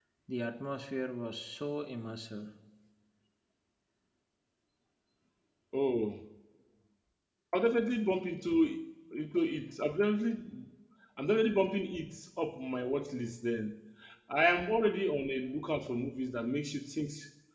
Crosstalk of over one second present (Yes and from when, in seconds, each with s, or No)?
No